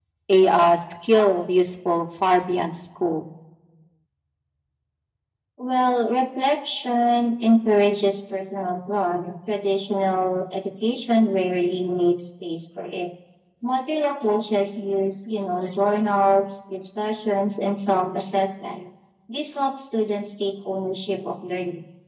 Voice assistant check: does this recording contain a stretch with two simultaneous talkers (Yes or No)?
No